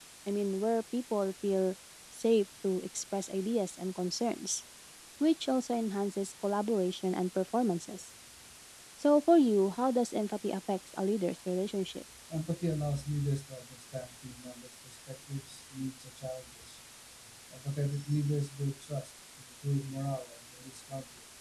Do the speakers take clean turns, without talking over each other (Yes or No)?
Yes